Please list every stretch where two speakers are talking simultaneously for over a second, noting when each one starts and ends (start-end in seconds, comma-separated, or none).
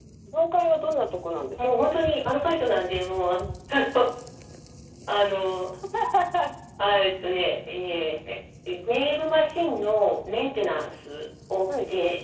none